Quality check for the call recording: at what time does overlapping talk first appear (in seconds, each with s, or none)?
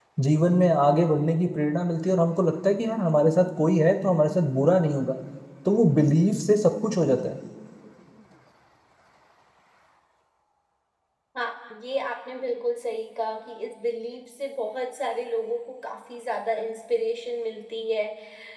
none